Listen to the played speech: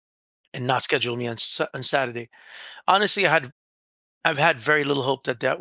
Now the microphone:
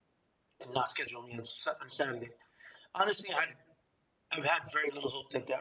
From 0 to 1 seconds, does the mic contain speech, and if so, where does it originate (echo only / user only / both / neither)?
echo only